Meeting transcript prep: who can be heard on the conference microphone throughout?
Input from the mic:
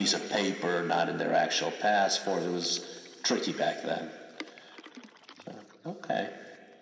echo only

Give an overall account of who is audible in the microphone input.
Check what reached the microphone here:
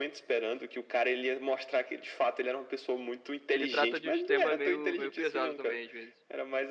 both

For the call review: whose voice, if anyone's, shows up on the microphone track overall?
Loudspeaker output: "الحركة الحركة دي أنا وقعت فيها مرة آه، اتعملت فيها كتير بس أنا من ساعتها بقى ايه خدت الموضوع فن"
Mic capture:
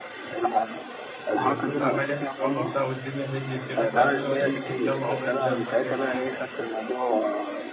both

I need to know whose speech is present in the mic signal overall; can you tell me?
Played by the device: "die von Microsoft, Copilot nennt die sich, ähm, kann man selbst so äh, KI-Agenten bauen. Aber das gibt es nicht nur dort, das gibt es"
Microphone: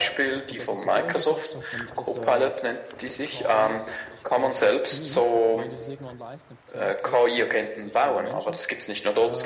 both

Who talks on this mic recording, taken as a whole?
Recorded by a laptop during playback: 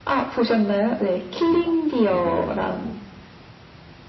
both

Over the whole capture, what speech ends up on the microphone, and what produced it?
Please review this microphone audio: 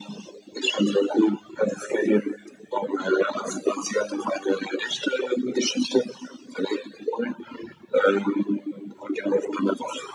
echo only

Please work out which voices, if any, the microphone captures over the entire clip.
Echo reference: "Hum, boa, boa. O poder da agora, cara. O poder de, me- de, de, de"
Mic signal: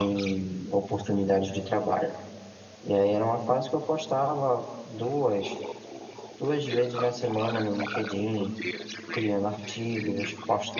both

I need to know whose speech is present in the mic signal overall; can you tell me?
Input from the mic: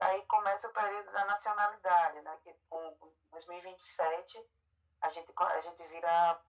echo only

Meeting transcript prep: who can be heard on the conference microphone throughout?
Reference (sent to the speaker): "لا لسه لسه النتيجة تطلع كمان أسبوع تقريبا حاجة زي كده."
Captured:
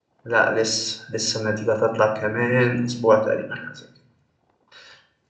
echo only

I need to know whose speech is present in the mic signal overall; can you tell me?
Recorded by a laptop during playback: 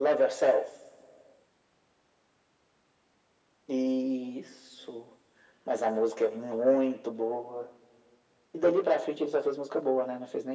echo only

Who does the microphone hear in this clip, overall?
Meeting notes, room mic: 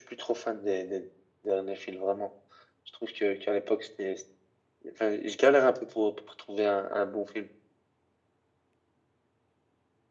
echo only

